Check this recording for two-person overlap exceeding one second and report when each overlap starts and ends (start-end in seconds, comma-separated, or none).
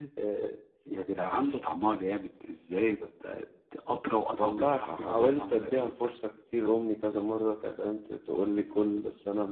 4.4-5.9